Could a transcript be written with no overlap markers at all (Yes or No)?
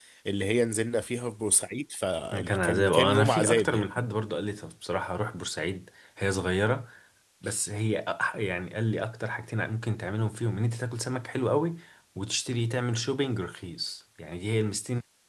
No